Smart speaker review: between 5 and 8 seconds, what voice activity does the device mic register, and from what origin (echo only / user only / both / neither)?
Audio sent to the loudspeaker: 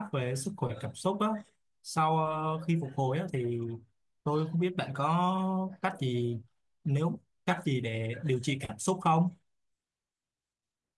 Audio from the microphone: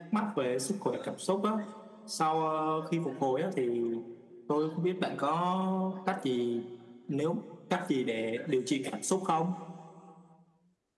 echo only